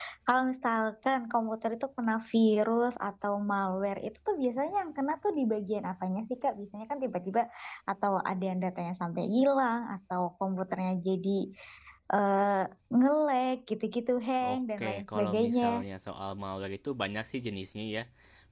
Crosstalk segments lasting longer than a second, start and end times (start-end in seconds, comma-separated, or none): 14.4-15.8